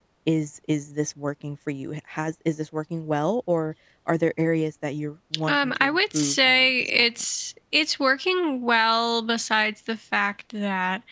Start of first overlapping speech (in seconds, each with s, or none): 5.5 s